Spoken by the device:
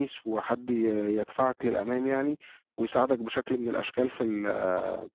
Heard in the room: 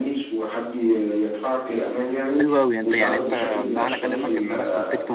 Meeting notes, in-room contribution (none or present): present